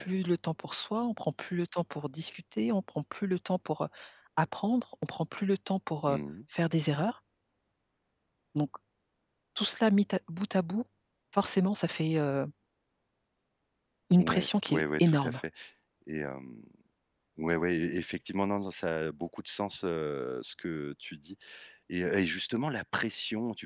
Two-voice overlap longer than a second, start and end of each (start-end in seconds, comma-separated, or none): 14.2-15.4